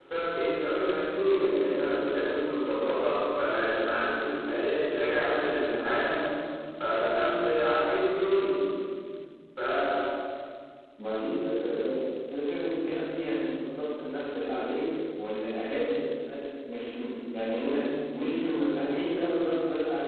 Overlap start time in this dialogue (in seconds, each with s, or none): none